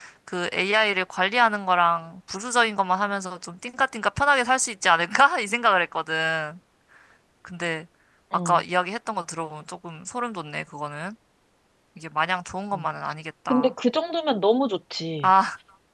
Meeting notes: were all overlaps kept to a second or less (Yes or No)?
Yes